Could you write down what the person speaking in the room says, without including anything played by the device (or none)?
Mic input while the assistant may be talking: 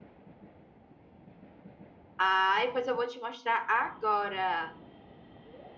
Ai, pois eu vou te mostrar agora.